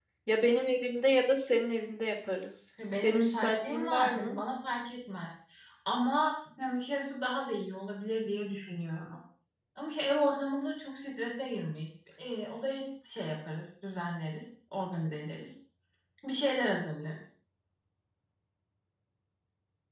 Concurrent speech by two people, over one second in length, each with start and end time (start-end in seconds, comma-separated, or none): 3.0-4.4